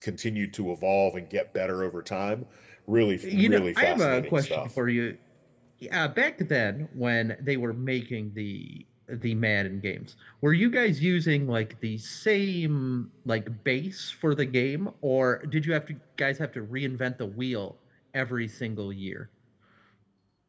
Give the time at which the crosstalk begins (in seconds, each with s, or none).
3.3 s